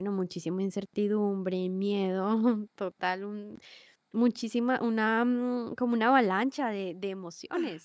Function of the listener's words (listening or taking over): taking over